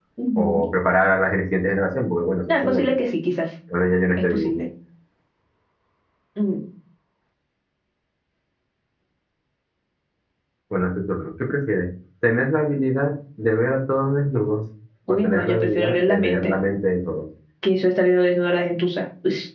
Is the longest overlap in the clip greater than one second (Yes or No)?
Yes